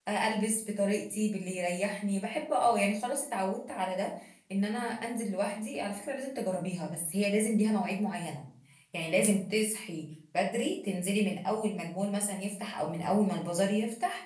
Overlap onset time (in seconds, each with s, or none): none